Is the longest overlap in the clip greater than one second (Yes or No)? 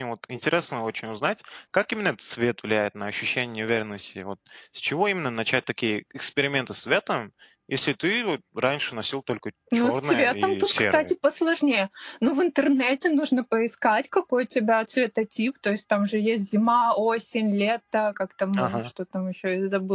Yes